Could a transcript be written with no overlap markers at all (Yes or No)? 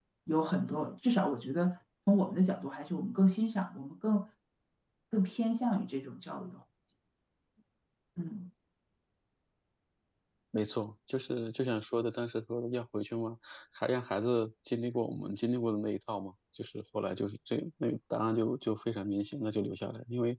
Yes